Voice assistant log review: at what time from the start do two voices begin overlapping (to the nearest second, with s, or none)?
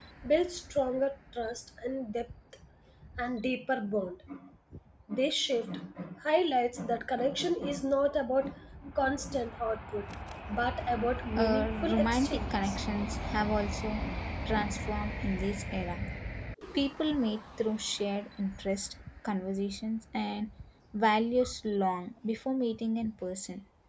11 s